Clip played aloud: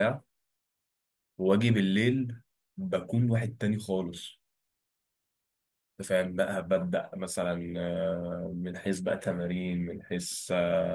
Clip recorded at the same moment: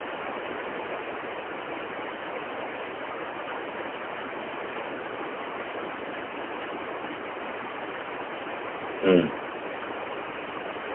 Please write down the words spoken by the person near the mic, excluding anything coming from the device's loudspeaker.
امم

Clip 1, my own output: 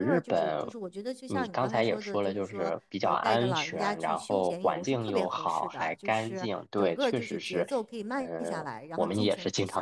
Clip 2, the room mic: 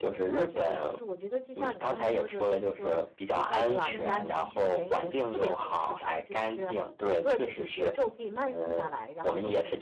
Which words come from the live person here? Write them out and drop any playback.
嗯，

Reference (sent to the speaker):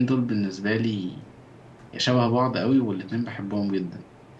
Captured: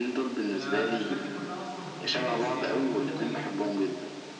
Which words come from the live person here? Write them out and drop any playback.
أنا الأسماء دي كلها أصلا في بالي بس يعني عارف اللي هو إيه

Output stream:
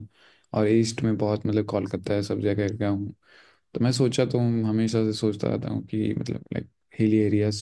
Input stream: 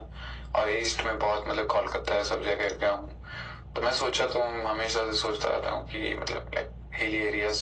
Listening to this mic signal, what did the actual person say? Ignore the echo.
none

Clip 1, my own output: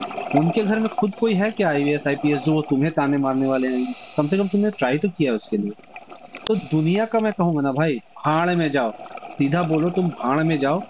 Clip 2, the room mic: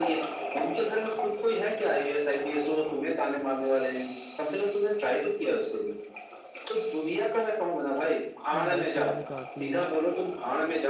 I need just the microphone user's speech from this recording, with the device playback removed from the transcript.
नहीं बाइक चलाने तो आती है

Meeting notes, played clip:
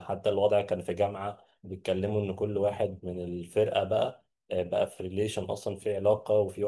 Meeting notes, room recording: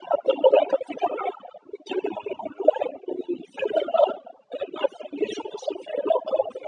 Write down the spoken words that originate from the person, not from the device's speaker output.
none

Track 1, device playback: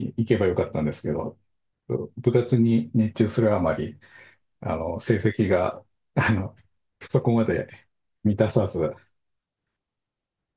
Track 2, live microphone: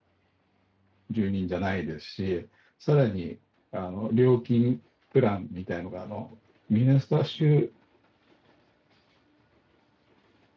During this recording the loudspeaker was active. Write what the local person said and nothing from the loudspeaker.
住人じゃないですし、さらに、あの、料金プランみたいのが、あの、ミネソタ州

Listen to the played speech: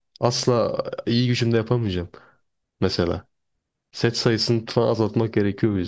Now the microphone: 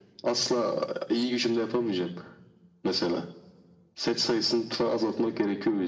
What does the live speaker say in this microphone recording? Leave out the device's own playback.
none

